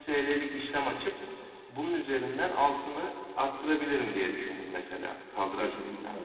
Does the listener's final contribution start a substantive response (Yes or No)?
Yes